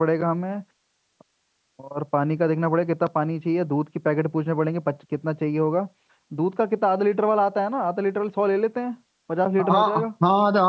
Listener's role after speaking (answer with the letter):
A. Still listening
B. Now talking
B